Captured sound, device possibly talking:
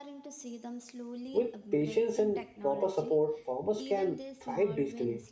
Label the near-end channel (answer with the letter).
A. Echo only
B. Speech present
B